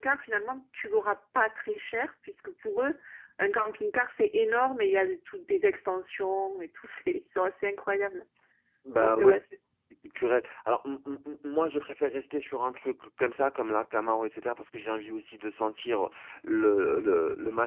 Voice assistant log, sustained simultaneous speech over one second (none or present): none